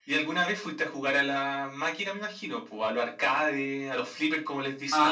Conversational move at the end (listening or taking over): taking over